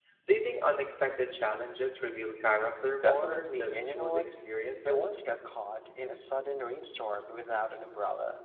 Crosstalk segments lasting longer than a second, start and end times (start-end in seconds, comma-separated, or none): 3.0-4.3